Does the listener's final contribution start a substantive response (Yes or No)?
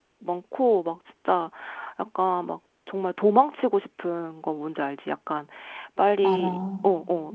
No